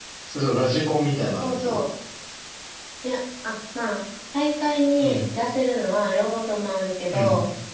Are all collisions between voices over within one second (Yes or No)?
Yes